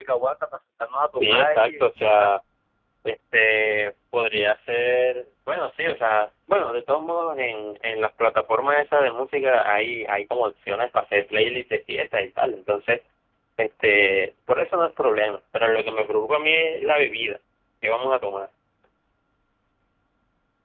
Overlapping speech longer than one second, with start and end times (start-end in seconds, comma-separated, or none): 1.1-2.3